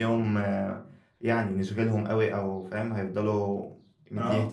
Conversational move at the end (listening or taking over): listening